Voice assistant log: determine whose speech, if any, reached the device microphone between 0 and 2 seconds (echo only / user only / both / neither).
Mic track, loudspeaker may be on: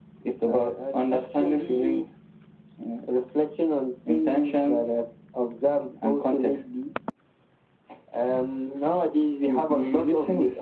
echo only